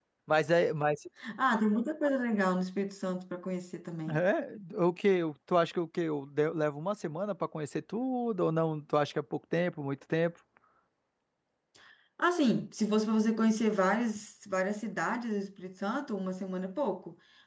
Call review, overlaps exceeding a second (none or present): none